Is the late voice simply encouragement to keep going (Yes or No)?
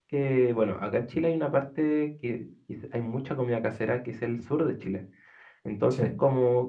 Yes